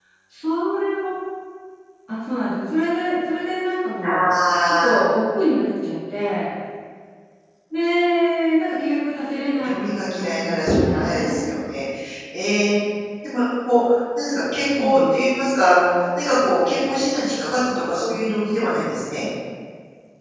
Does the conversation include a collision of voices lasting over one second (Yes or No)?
Yes